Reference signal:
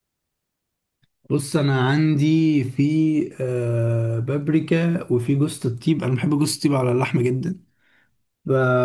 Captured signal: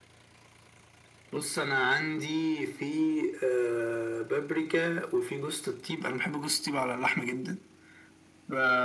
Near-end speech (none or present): none